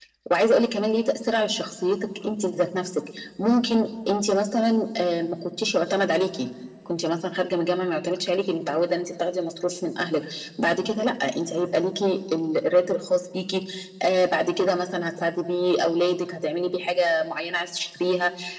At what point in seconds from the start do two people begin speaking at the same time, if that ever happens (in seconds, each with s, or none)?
none